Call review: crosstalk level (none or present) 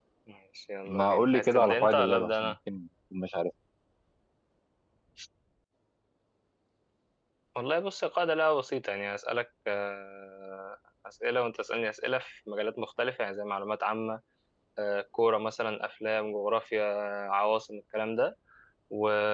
present